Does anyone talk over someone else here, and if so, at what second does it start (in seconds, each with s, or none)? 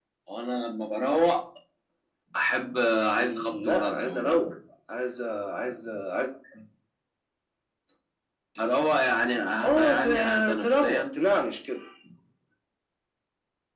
3.2 s